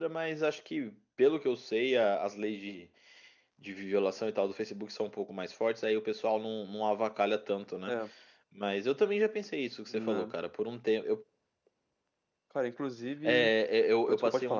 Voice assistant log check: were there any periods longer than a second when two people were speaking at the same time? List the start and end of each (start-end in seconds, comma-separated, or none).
none